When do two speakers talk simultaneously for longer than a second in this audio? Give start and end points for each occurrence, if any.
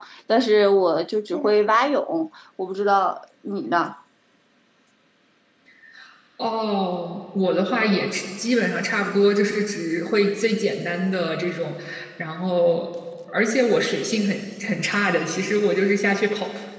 none

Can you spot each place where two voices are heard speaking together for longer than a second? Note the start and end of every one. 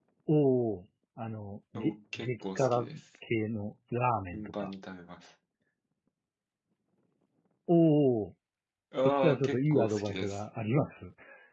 1.8-3.0, 9.1-10.4

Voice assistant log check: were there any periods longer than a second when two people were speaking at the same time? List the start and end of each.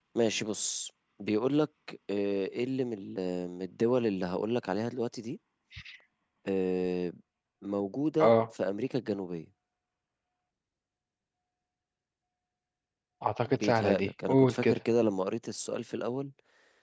13.5-14.8

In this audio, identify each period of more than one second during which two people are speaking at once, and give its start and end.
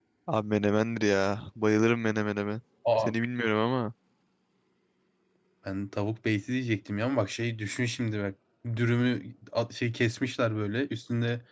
none

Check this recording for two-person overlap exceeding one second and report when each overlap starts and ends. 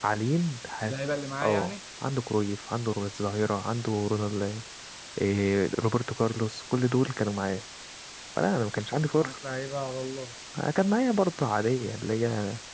none

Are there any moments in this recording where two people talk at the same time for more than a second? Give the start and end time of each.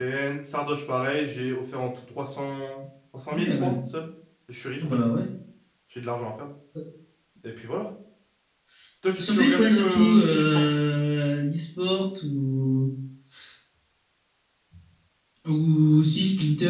9.2-10.6

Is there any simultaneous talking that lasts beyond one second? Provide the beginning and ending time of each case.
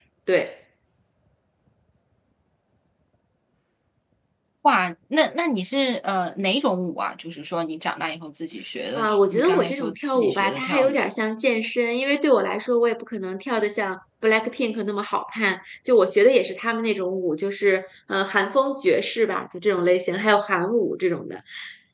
9.0-11.0

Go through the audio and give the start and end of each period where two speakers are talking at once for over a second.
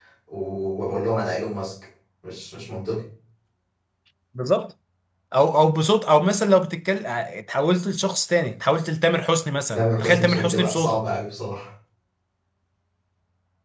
9.7-11.1

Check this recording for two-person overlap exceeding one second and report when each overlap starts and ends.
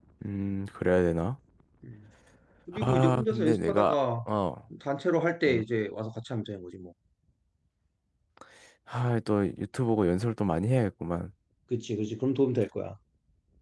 2.8-4.0

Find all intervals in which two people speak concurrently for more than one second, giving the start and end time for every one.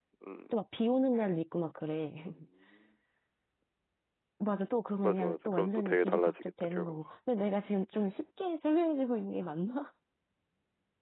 5.0-7.0

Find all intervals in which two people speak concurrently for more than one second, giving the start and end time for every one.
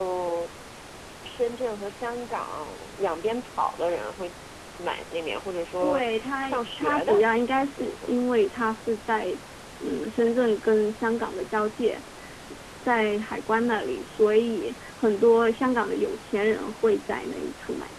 5.8-7.2

